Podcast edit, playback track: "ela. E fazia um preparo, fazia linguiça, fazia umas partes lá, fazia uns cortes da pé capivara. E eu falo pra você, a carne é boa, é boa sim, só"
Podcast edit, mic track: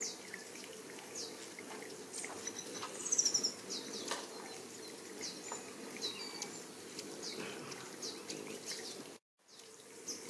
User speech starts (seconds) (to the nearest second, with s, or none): none